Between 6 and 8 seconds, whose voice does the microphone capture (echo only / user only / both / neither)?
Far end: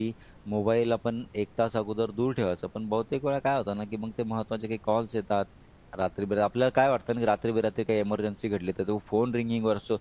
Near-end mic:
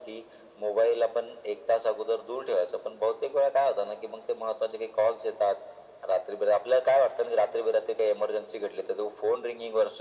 echo only